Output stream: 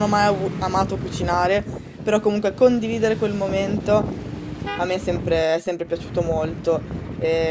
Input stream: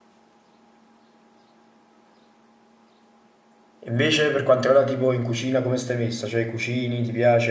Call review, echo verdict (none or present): none